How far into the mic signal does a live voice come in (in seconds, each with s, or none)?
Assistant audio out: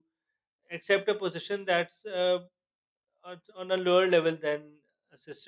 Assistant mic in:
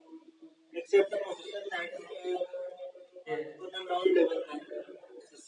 3.2 s